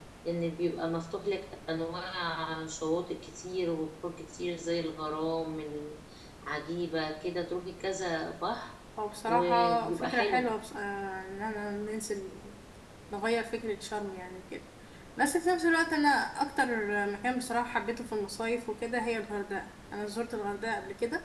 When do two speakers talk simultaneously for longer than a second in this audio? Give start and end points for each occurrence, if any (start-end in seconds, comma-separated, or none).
9.3-10.5